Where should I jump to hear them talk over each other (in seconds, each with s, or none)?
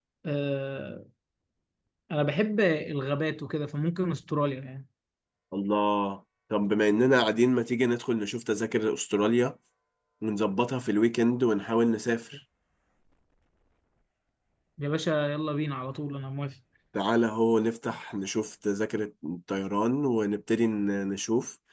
none